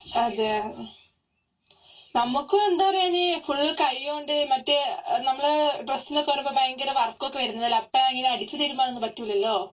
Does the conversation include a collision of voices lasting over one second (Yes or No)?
No